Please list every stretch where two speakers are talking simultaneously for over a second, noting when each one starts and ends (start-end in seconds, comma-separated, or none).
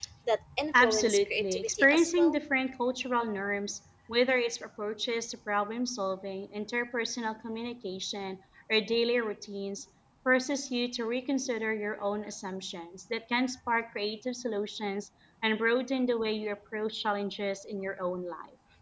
0.8-2.4